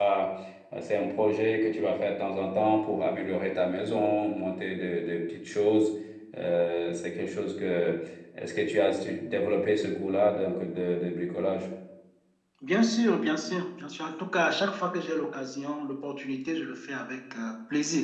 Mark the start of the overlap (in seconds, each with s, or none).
none